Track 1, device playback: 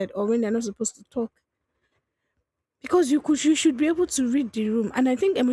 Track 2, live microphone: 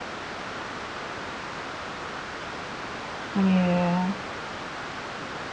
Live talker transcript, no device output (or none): Yeah,